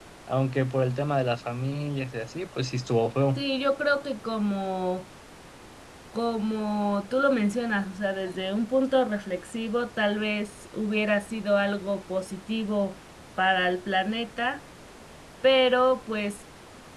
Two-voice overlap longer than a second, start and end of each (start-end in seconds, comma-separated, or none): none